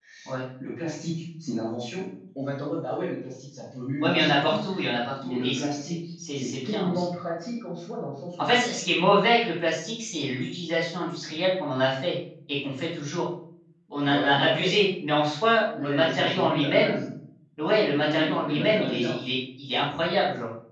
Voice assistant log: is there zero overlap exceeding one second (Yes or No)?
No